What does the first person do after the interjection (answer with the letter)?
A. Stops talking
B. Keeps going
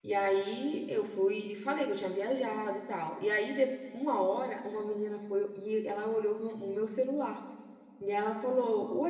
B